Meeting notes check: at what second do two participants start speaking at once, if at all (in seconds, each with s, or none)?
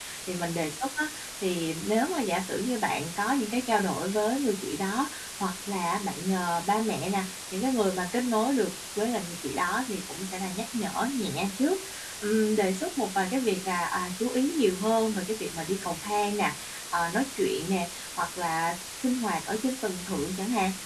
none